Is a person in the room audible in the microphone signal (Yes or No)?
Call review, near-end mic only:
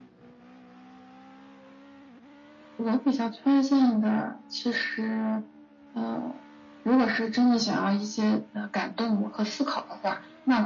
No